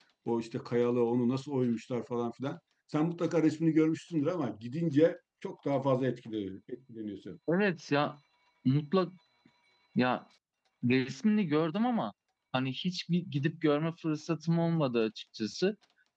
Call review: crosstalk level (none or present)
none